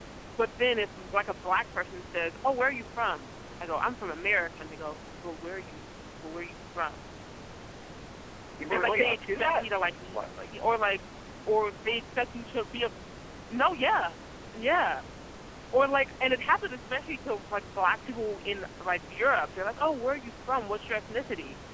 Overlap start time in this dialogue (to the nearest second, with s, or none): 9 s